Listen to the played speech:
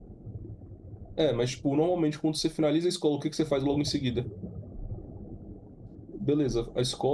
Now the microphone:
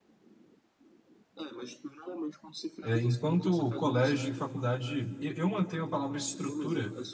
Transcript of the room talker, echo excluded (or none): É, enquanto colégio e faculdade, eu, eu mantenho a palavra estrutura.